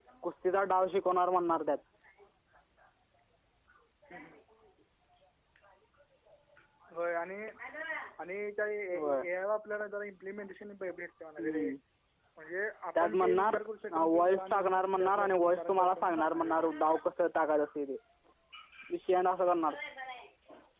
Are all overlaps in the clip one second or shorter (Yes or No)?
No